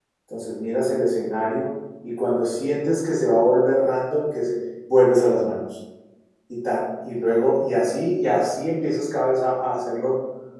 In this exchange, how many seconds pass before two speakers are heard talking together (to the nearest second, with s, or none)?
none